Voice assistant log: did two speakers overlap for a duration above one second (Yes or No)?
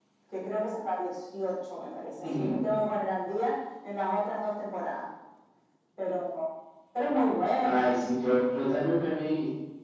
No